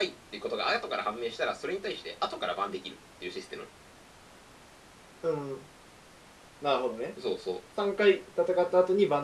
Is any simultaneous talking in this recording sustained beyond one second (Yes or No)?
No